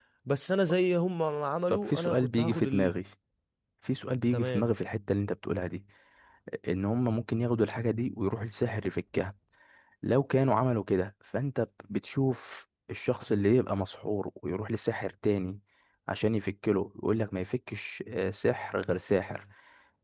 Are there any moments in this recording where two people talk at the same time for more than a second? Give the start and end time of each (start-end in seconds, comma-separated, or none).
1.7-2.9